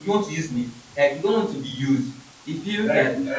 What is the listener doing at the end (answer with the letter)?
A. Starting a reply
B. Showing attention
A